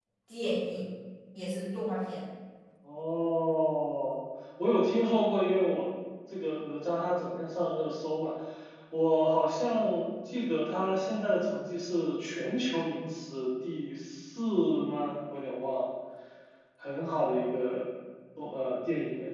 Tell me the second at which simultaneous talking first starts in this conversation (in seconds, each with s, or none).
none